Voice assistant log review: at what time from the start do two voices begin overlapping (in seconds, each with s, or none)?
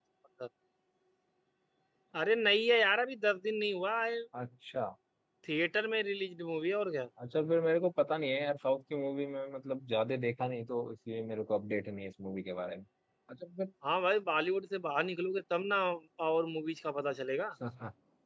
none